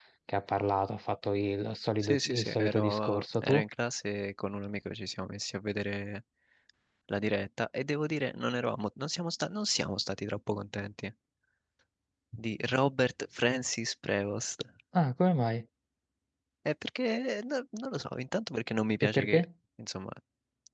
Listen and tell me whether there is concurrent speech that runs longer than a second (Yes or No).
Yes